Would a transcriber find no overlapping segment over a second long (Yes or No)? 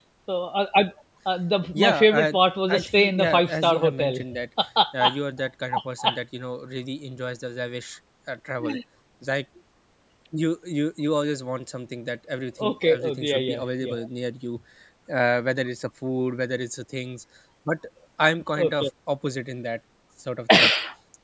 No